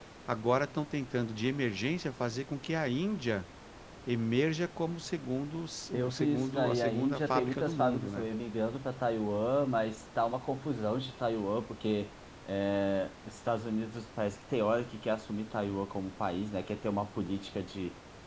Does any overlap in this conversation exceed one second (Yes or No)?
Yes